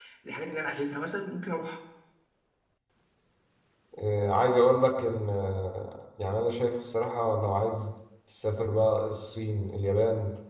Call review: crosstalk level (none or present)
none